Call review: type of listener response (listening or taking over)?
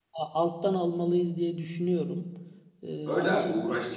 taking over